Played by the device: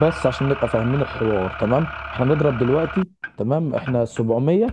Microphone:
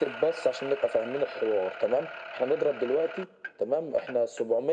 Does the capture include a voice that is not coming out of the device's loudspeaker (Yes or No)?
No